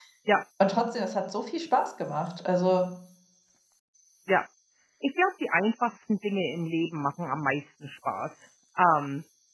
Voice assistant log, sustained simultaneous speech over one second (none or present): none